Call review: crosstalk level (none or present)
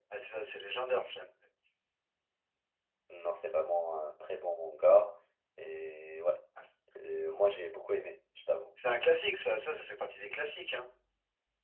none